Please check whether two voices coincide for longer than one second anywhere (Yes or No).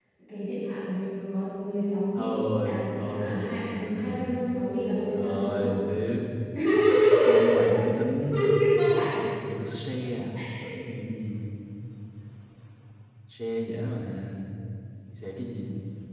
Yes